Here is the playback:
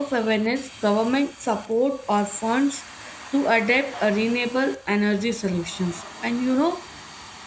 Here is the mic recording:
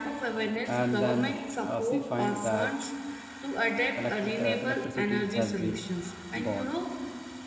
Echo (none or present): present